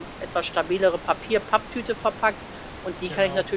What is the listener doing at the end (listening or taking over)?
listening